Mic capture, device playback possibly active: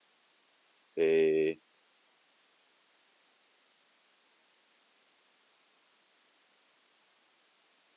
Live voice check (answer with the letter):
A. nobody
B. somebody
B